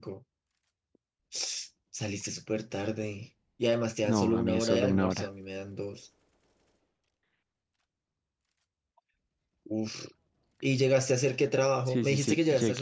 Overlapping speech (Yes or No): Yes